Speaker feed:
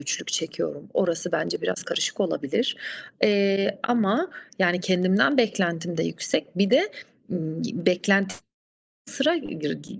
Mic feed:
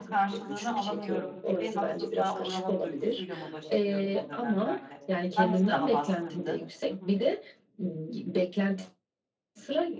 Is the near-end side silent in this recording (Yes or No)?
No